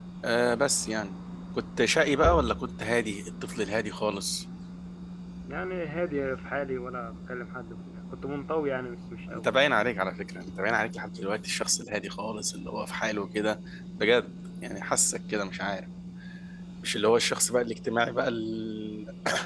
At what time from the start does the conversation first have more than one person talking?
none

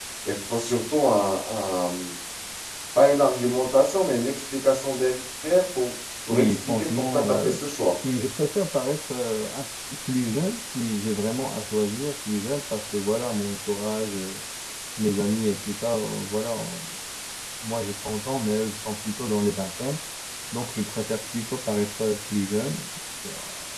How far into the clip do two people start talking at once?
6 s

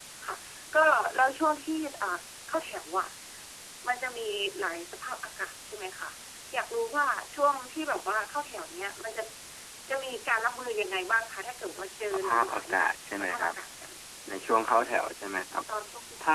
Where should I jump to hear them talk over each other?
12 s

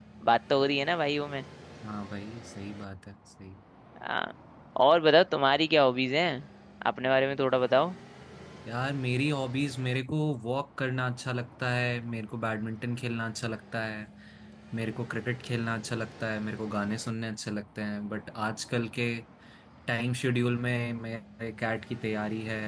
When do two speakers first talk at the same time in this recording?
none

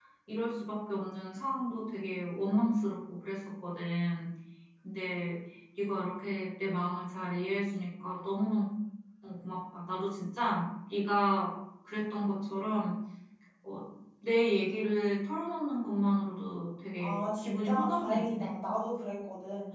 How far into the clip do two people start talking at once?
17 s

